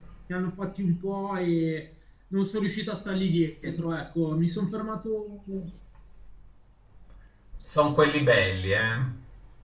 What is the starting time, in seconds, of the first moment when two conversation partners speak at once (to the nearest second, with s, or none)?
none